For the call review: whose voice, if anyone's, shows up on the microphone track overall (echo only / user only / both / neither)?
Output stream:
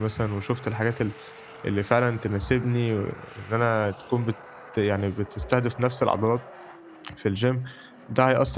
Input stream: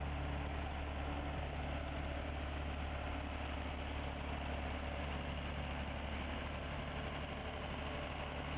neither